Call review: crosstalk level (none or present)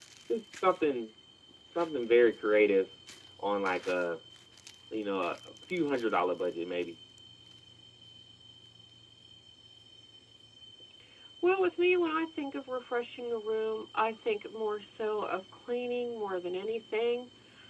none